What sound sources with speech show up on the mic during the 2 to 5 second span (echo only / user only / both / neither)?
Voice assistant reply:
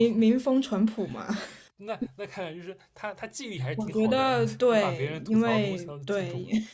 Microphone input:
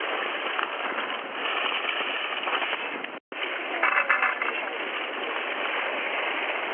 neither